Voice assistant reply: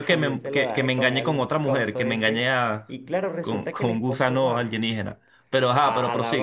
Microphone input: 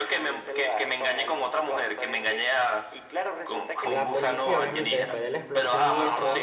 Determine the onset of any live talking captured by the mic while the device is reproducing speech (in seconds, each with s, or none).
3.8 s